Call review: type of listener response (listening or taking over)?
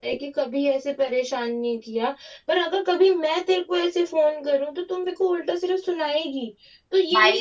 listening